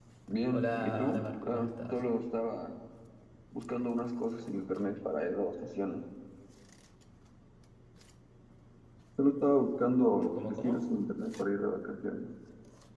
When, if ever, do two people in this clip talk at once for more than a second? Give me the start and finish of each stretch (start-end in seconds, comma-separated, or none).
0.5-2.0